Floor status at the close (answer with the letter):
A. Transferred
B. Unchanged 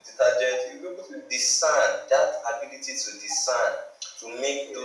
B